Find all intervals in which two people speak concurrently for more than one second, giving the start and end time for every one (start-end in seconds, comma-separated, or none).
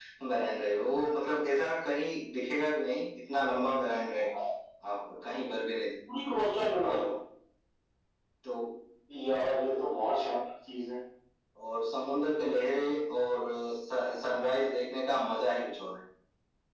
none